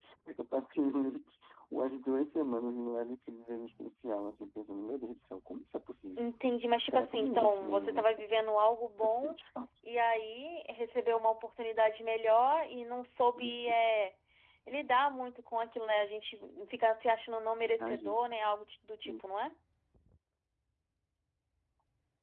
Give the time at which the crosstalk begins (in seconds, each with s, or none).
6.8 s